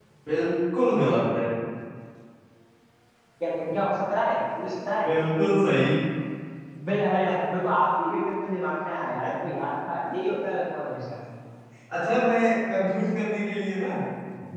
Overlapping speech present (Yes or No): No